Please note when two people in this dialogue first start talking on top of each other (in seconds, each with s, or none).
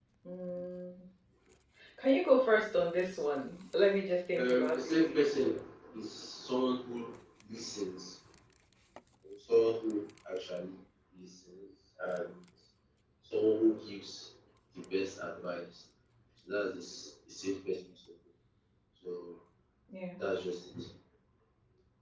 4.3 s